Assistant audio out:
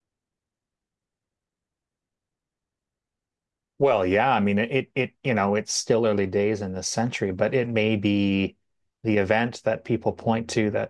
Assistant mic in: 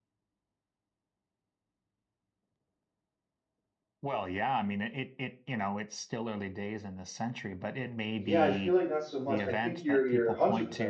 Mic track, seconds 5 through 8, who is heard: echo only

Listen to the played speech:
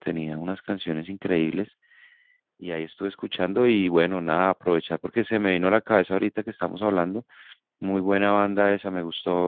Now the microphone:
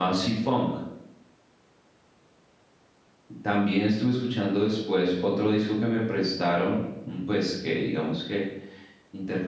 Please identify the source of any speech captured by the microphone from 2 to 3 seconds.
neither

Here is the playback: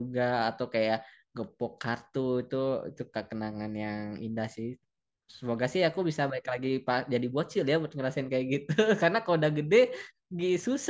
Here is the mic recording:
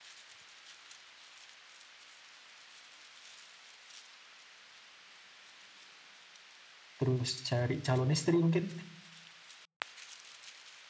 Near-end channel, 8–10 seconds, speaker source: user only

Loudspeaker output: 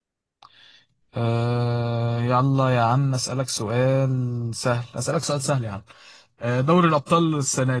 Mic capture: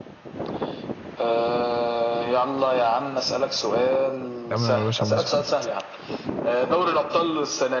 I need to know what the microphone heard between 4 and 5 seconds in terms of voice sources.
both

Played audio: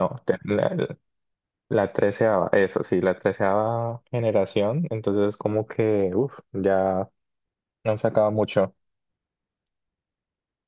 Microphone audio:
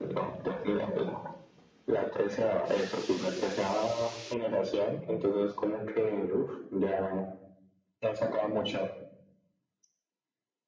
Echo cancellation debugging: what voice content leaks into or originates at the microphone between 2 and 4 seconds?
echo only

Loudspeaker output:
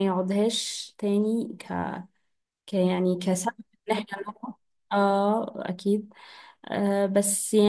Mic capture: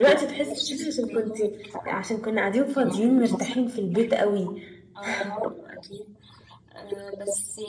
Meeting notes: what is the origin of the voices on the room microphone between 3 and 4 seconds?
both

